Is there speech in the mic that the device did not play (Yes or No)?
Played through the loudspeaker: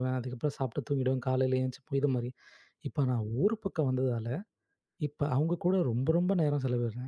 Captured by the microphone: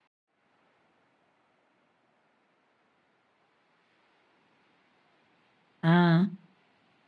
Yes